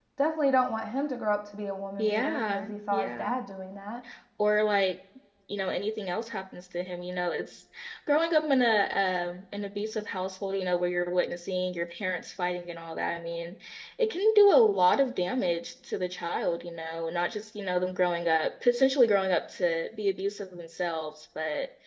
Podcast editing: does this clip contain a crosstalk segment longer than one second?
Yes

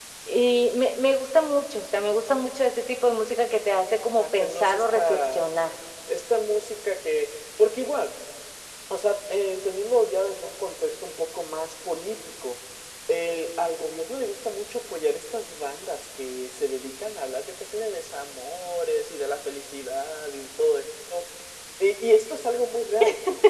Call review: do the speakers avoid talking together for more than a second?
No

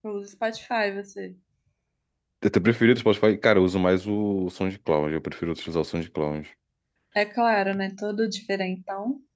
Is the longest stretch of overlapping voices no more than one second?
Yes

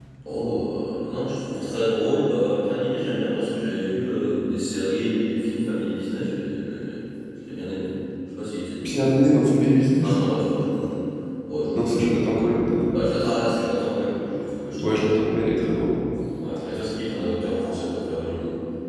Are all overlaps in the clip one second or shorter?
Yes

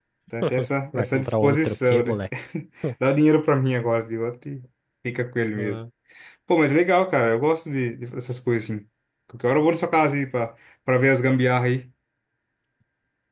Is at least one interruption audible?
Yes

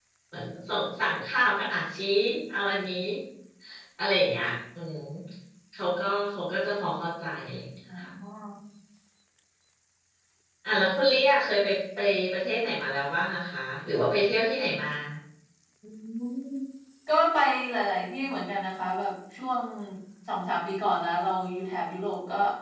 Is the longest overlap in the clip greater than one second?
No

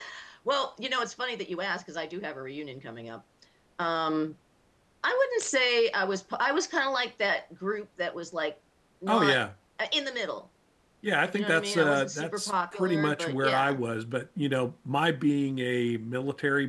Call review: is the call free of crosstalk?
No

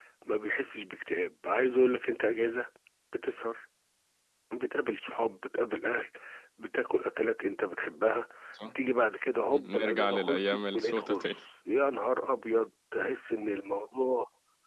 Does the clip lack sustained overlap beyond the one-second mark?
No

